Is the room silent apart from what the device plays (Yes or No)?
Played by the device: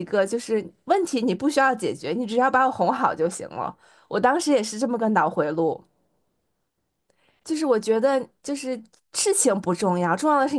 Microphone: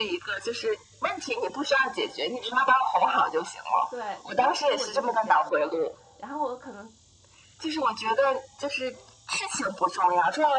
No